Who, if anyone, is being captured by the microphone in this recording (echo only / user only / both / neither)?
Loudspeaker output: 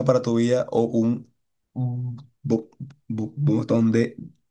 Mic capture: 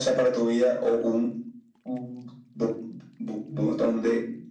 echo only